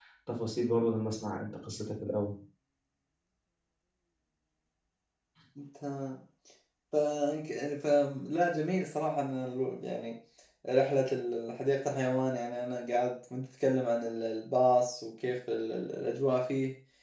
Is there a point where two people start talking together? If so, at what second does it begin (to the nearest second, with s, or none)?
none